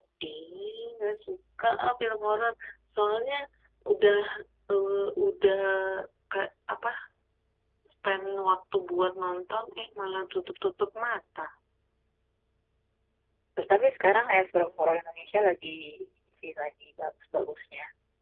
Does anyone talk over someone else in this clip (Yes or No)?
No